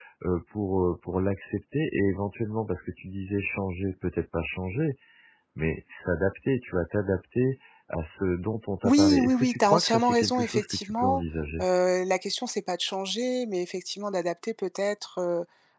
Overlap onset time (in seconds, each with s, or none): 8.8 s